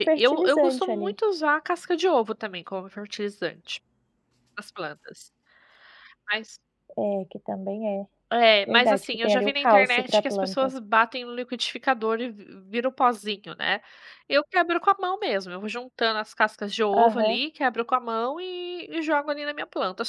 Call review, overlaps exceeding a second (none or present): present